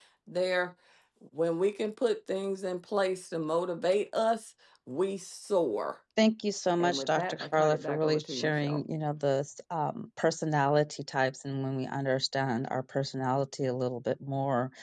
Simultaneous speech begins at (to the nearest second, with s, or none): 7 s